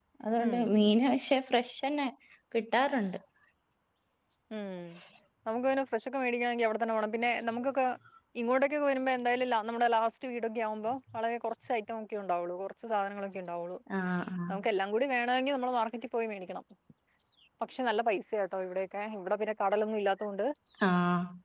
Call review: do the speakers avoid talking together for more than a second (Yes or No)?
Yes